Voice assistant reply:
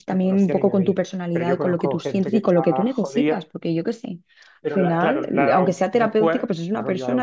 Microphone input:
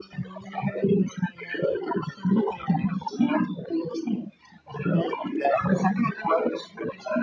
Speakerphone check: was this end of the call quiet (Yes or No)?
Yes